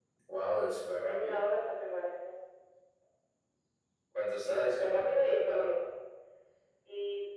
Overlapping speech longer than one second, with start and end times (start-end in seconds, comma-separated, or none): 4.4-5.7